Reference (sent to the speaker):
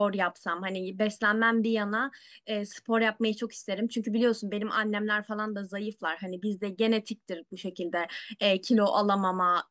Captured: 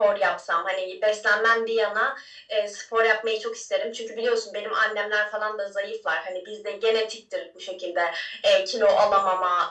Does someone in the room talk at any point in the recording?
No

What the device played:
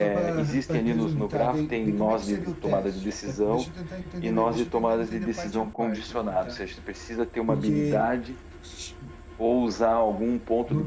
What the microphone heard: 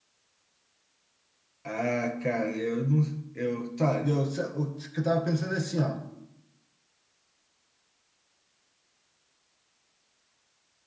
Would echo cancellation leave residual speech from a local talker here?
Yes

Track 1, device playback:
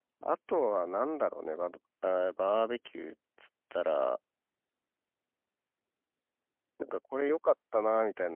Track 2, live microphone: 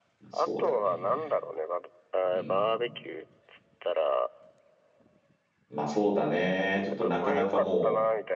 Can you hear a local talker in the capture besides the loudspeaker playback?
Yes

